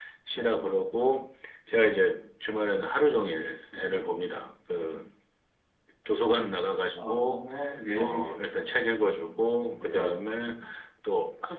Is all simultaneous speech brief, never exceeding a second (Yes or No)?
Yes